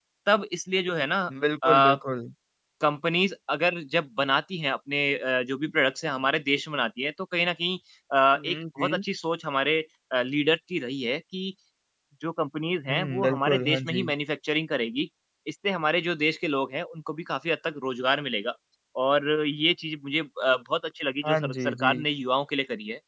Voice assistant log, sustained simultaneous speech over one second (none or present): present